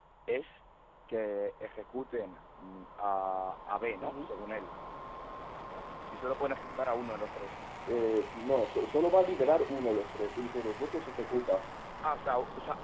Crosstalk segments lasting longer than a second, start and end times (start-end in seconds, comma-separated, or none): none